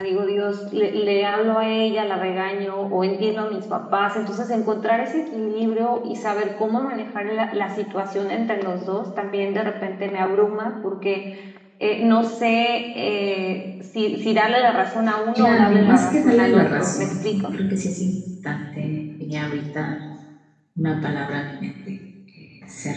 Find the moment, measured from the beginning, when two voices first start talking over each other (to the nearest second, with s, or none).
15 s